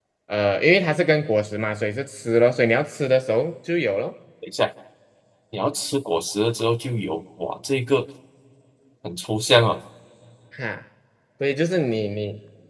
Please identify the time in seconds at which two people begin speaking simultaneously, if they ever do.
none

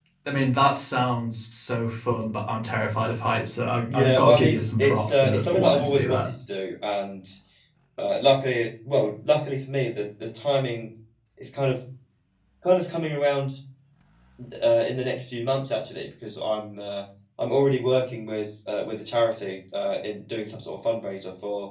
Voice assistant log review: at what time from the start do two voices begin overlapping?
3.9 s

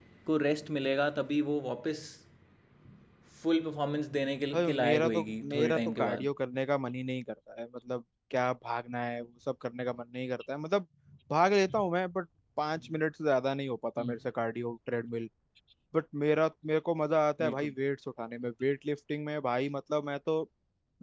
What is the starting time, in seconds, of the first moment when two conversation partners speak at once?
4.5 s

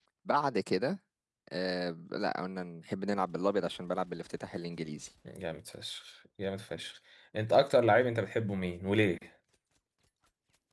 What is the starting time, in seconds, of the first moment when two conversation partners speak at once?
none

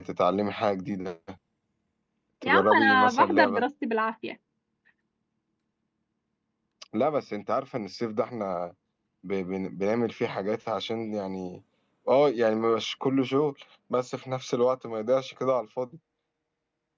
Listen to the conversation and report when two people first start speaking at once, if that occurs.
2.4 s

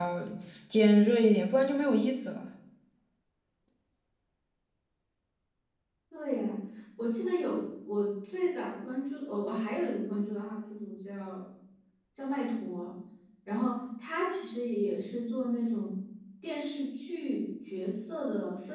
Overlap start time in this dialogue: none

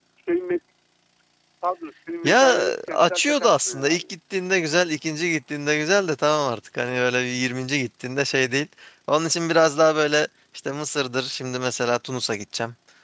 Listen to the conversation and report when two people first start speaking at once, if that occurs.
2.2 s

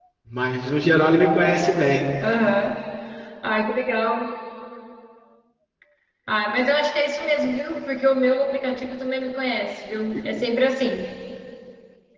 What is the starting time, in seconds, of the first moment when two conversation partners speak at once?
none

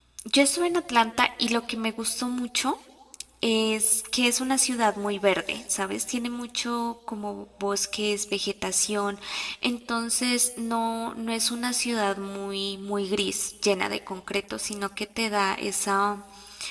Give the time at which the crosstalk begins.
none

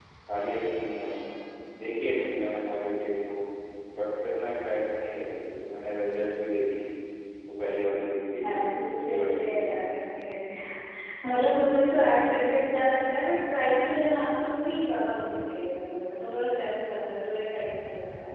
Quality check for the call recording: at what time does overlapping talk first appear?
8.4 s

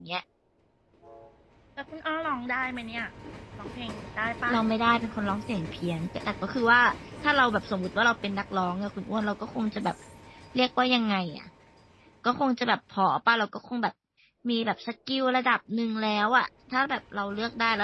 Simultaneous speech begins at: none

